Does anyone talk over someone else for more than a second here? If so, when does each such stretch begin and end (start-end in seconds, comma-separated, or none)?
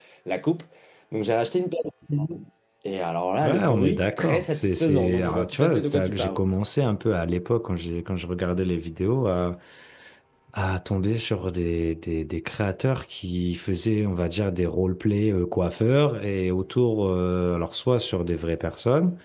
3.4-6.4